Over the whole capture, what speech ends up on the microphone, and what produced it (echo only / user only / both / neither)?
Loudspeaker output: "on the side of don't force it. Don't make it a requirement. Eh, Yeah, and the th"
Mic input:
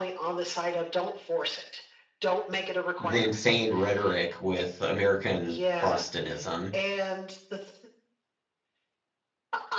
both